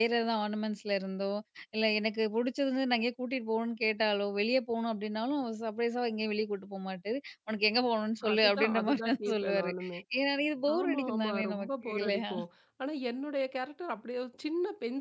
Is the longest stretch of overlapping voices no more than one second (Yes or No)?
No